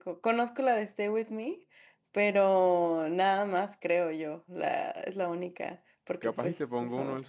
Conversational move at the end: taking over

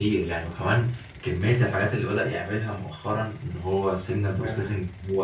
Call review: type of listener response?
listening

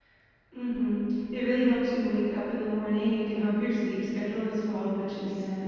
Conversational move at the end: listening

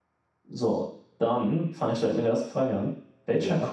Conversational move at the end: listening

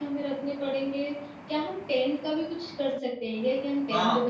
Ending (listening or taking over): taking over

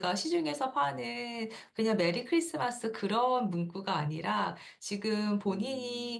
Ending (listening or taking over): listening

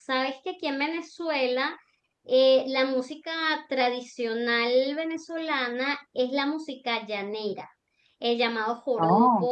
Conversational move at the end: listening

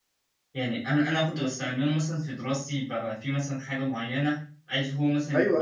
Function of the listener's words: listening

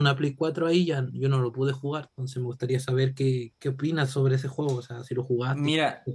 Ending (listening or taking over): taking over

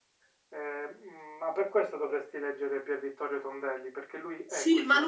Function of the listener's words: taking over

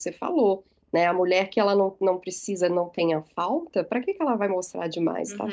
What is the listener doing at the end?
taking over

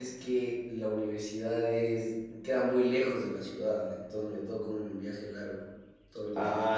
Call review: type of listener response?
taking over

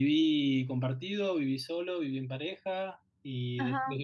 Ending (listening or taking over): listening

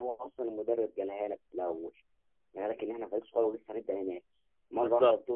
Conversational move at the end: listening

